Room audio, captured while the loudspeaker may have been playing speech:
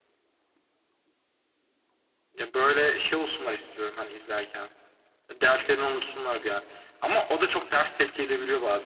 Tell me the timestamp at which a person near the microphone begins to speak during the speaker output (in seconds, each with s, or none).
none